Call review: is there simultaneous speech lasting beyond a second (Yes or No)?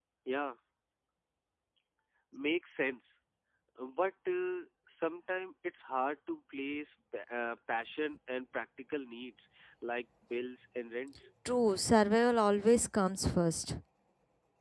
No